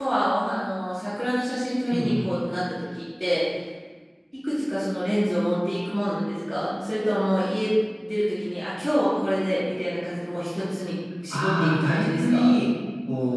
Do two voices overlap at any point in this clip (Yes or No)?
Yes